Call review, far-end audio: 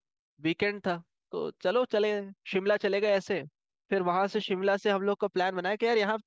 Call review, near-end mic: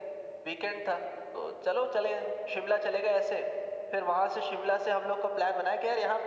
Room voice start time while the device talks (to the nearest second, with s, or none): none